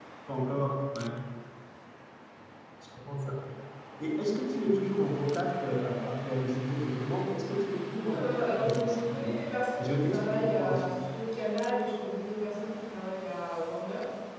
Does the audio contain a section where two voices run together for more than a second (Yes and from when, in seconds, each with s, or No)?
Yes, from 8.1 s